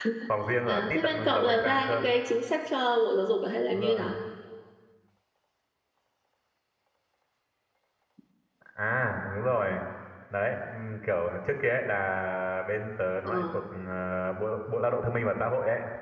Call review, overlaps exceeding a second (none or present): present